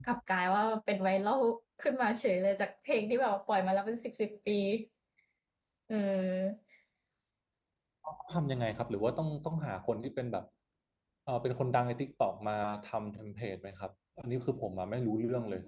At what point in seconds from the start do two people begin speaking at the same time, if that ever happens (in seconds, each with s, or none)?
none